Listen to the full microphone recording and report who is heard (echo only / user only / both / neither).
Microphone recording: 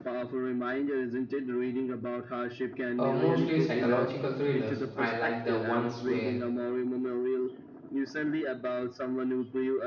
both